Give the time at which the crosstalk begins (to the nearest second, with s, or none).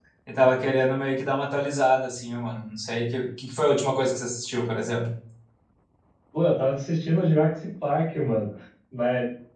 none